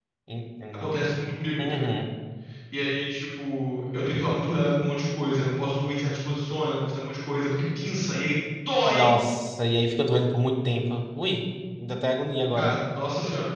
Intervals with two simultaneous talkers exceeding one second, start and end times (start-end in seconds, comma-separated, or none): none